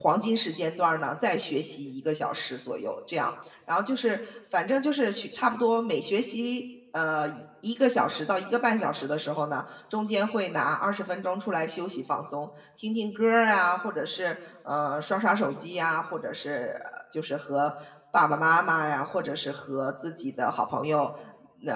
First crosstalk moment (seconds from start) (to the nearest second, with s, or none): none